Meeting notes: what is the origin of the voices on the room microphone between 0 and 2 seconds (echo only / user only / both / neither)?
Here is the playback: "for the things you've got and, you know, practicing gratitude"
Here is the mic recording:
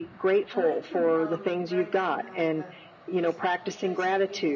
both